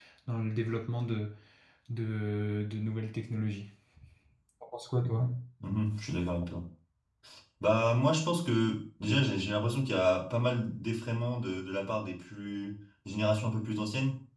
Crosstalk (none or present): none